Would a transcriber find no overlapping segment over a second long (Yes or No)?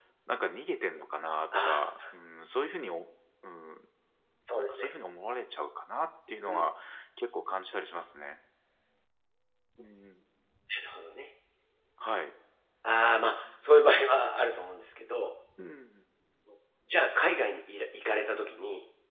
Yes